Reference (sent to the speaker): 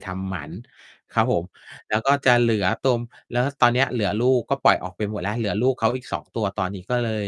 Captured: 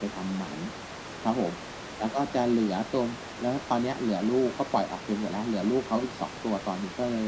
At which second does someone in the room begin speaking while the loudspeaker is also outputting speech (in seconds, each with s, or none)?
none